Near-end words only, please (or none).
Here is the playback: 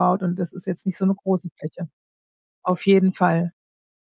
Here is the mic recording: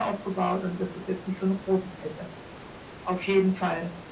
none